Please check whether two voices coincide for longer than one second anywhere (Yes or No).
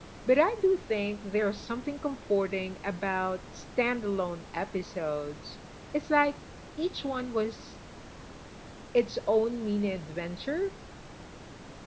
No